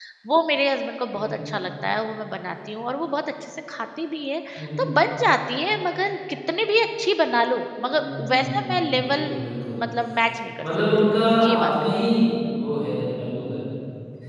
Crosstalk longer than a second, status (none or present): present